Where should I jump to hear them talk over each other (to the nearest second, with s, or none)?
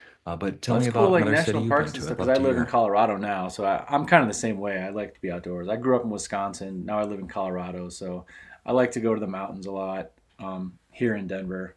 1 s